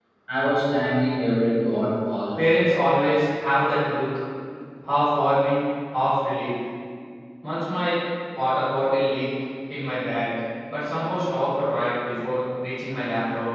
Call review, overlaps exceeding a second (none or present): none